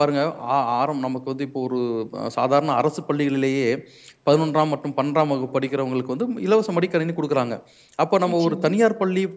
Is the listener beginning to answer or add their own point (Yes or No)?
No